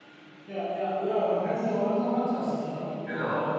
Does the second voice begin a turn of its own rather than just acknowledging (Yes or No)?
No